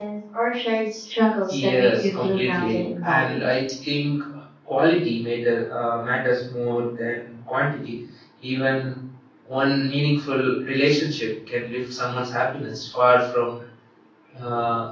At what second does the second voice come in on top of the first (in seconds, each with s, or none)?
1.5 s